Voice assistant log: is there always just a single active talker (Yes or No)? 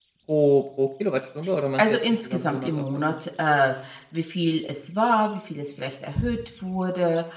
No